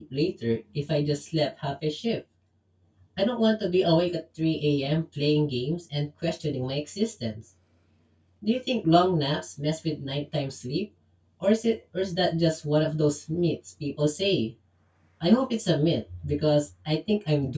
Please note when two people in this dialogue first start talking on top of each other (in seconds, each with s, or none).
none